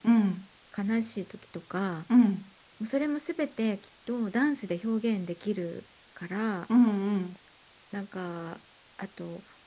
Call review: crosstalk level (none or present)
none